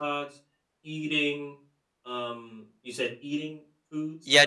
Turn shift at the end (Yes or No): Yes